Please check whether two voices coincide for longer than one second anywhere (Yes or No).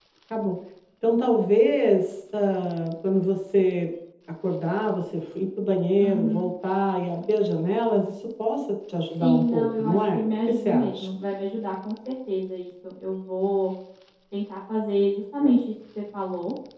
Yes